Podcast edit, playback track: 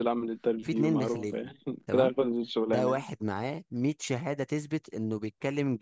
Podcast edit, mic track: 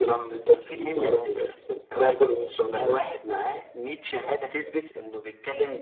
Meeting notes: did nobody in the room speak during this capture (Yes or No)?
Yes